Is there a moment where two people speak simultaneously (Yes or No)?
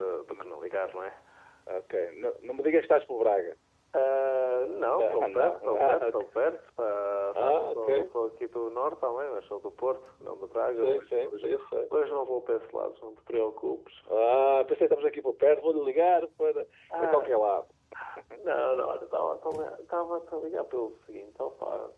Yes